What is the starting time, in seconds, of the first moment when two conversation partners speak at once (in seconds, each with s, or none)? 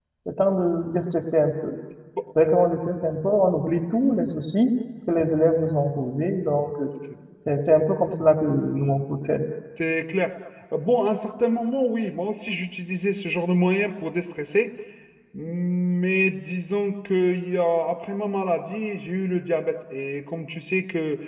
none